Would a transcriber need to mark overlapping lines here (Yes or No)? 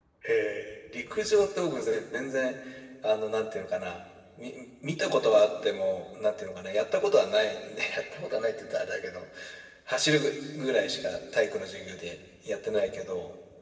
No